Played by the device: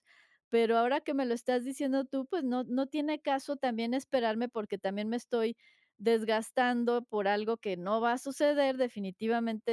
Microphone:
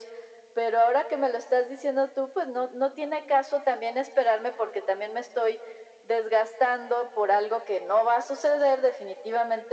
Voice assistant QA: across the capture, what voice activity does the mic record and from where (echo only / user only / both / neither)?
echo only